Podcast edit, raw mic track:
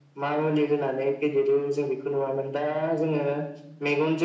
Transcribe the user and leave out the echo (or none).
none